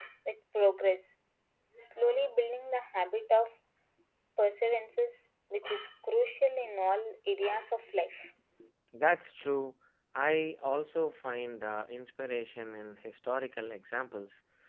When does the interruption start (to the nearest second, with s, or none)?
none